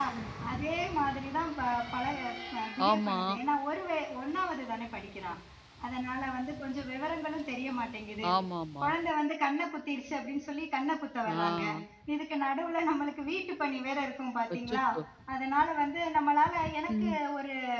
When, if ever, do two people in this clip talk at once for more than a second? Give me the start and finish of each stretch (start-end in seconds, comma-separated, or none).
none